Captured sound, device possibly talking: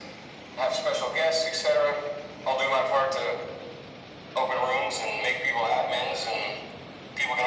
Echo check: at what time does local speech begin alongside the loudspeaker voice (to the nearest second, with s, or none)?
none